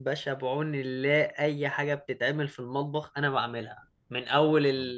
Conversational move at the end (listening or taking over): listening